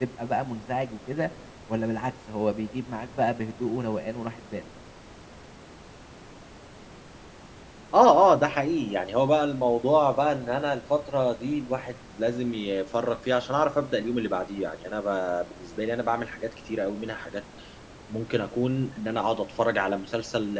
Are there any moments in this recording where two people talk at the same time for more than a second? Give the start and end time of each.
none

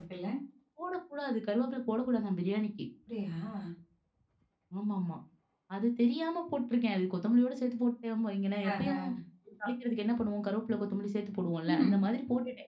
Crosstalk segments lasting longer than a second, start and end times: none

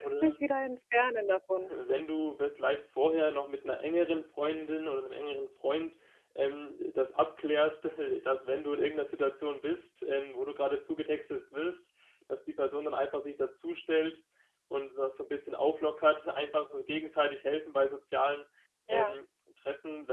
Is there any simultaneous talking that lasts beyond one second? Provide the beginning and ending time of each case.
none

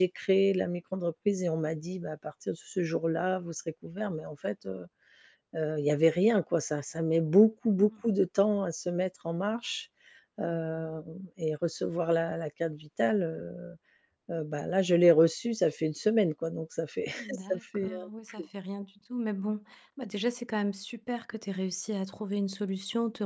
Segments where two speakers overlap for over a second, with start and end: 17.2-18.4

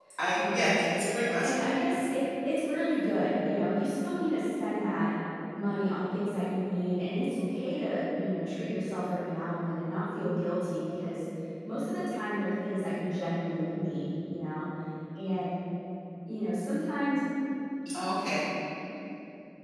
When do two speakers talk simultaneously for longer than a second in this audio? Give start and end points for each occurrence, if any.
none

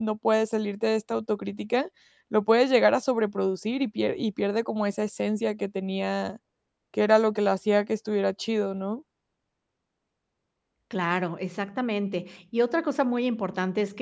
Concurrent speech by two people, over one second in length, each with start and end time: none

